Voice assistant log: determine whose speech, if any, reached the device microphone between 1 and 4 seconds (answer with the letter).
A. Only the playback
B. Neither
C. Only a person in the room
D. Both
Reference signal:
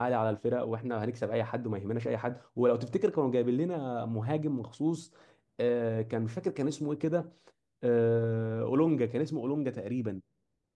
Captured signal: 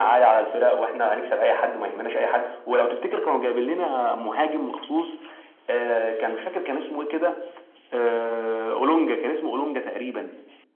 A